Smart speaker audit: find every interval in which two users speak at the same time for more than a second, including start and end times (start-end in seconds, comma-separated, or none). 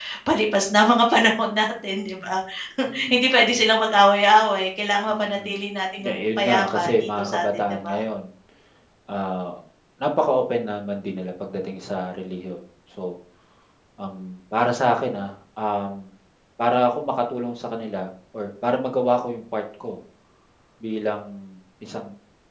6.0-8.0